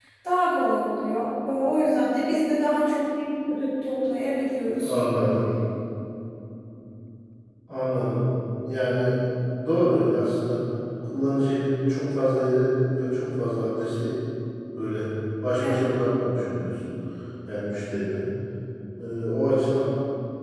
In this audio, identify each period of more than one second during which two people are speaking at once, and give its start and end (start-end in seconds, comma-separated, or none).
none